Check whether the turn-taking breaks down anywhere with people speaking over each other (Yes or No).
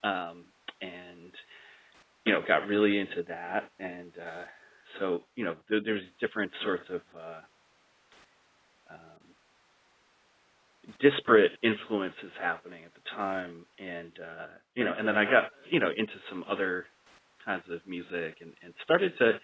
No